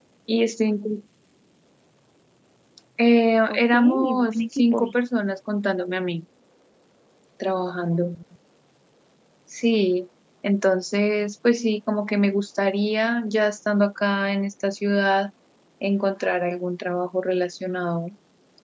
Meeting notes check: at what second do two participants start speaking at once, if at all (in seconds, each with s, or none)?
3.5 s